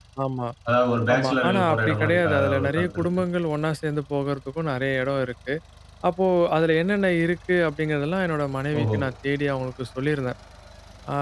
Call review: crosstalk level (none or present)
present